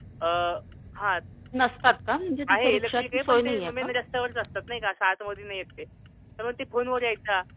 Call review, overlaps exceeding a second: present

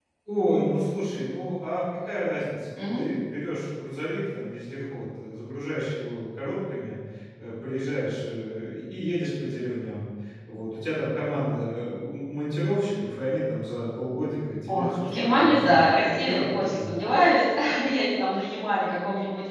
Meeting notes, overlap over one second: present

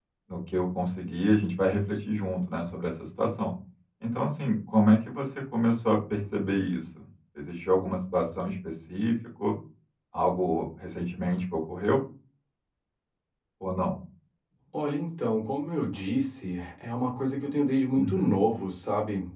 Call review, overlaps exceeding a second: none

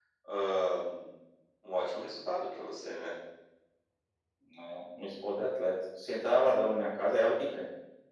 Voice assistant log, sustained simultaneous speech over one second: none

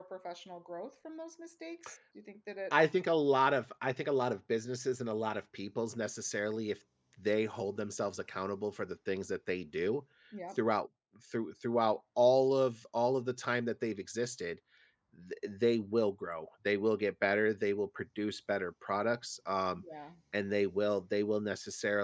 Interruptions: none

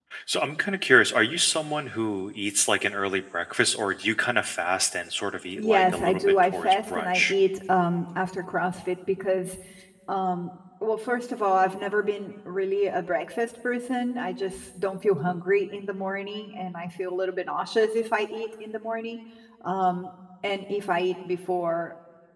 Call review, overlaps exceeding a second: present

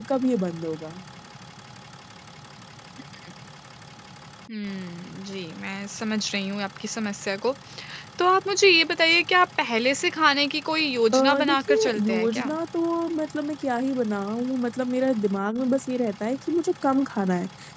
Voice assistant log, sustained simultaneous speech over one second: present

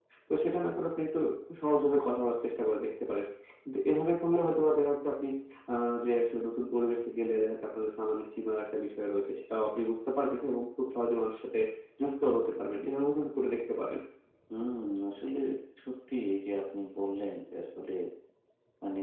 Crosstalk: none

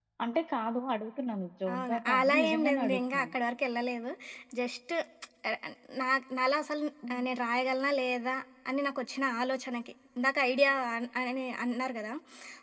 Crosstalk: present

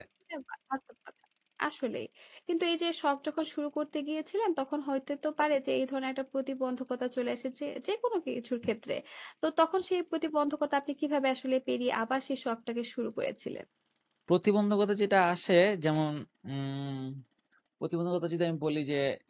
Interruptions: none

